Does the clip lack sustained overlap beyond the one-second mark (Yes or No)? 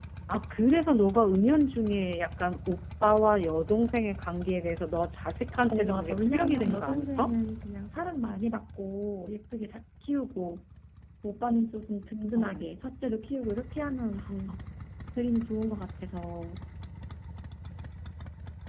No